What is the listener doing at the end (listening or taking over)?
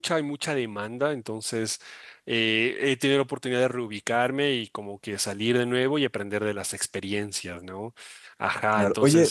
taking over